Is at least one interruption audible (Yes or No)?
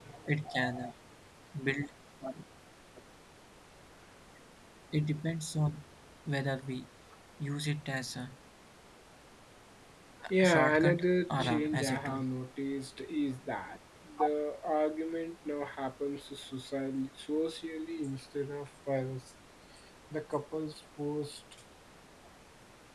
Yes